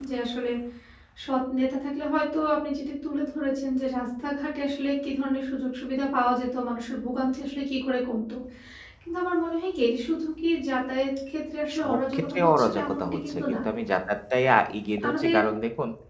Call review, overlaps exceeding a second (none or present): present